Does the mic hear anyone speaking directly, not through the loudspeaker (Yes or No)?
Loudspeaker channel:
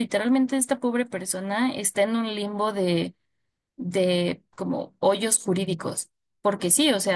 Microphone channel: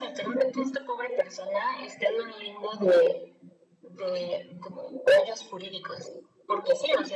No